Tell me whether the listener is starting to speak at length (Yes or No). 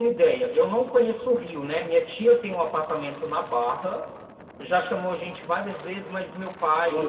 No